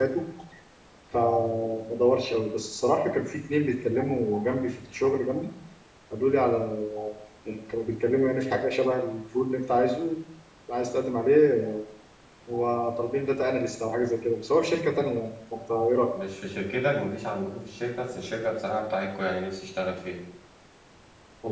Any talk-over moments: No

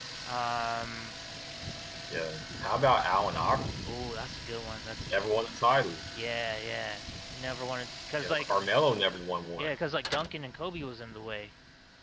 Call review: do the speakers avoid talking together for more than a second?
Yes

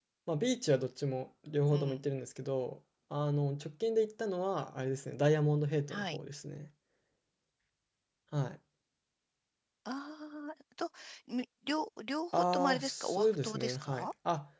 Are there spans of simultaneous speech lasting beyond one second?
Yes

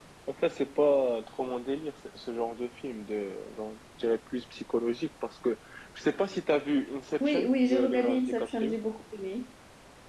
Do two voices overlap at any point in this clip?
Yes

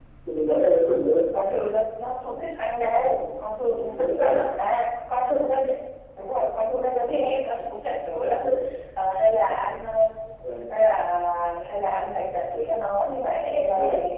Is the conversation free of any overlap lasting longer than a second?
Yes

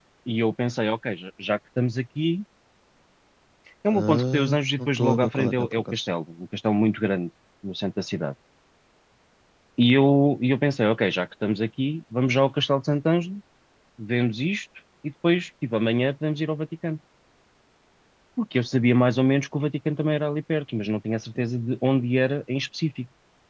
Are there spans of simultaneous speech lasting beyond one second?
Yes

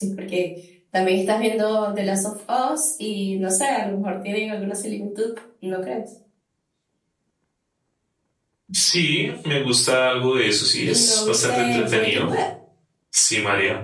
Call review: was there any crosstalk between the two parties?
Yes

